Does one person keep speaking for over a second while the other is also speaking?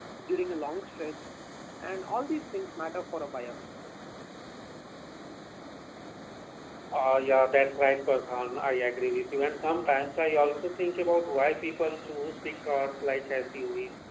No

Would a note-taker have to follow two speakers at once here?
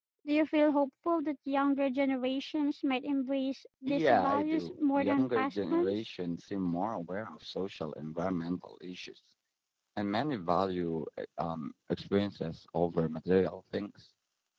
Yes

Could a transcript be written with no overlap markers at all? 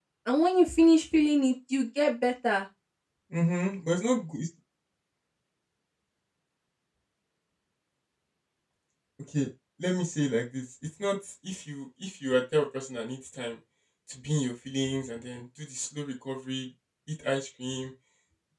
Yes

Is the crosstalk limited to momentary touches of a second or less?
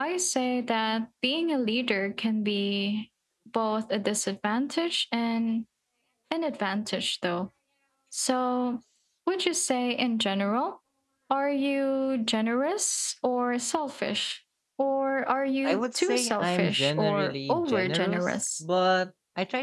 No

